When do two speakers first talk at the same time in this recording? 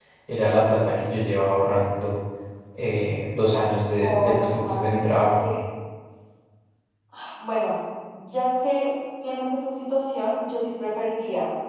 4 s

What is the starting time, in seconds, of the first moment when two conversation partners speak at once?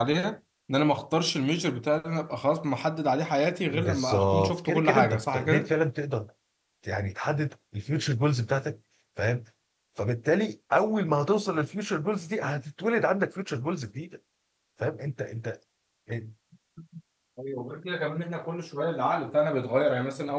4 s

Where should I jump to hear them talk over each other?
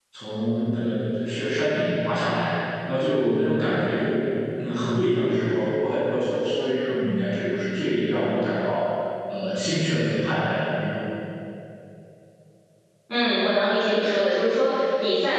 none

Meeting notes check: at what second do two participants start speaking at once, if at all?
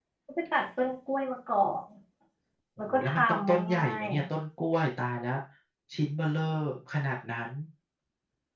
3 s

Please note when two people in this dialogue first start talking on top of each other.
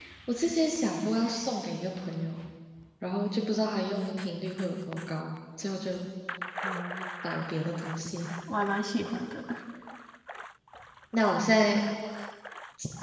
none

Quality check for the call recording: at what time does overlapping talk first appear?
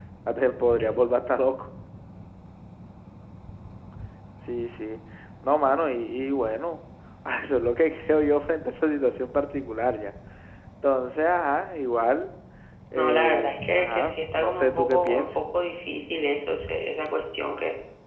13 s

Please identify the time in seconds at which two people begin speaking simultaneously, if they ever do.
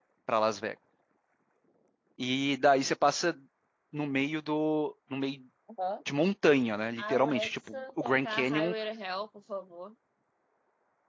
7 s

